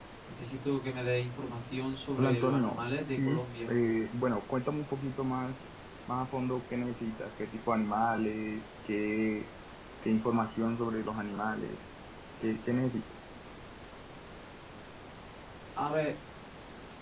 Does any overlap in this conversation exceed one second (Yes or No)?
Yes